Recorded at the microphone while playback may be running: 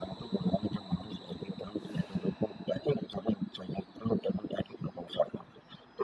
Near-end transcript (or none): none